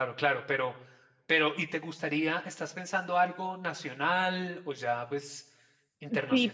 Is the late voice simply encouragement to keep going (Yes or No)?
No